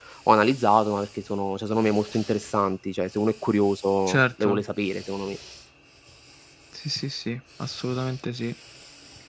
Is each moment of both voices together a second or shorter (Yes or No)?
Yes